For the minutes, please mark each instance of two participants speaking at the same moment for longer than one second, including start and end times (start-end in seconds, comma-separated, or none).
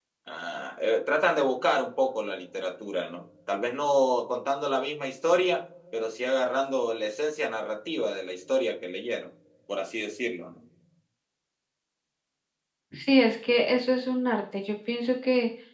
none